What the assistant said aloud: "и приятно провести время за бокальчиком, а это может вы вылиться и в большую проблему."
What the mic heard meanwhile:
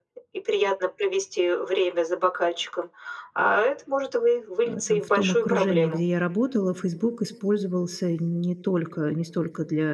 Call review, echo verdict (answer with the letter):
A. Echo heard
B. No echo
A